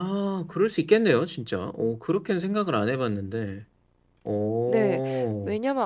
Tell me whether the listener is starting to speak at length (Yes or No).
Yes